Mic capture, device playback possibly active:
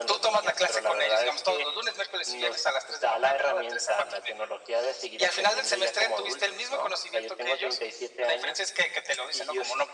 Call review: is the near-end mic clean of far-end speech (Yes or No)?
No